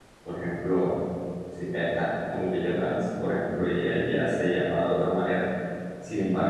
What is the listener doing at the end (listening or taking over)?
listening